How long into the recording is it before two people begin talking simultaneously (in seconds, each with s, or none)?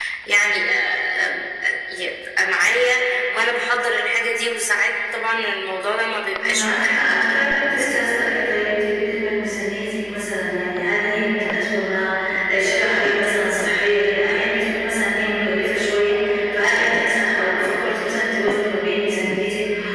6.4 s